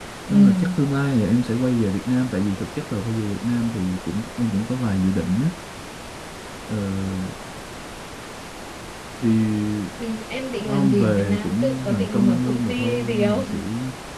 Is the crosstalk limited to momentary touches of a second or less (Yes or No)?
No